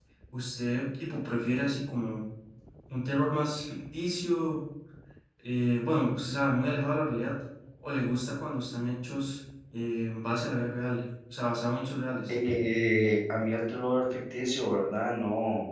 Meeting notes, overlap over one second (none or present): none